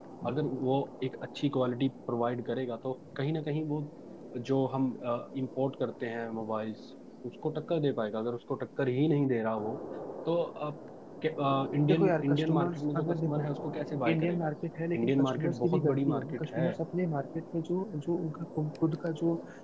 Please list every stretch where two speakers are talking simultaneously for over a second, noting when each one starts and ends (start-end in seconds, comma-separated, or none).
11.9-13.5, 14.9-16.7